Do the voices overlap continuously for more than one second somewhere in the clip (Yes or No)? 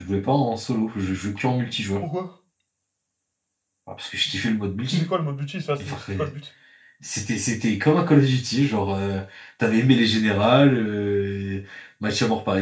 No